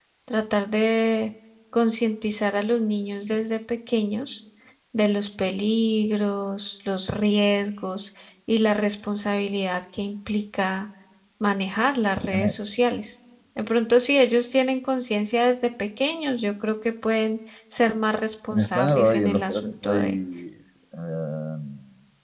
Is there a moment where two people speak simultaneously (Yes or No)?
Yes